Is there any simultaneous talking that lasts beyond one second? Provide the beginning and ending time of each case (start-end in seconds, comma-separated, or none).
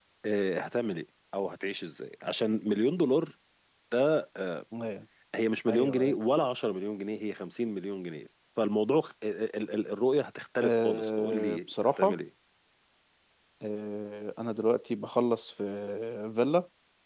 10.6-12.2